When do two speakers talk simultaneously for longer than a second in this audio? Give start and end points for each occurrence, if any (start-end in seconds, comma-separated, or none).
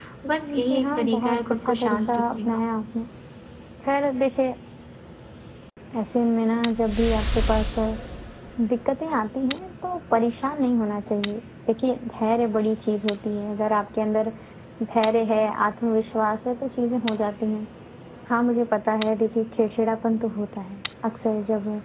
0.7-2.6